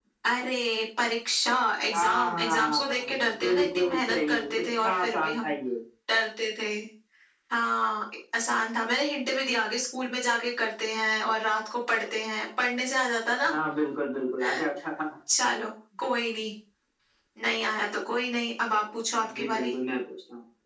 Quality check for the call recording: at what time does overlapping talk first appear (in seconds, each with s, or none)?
1.9 s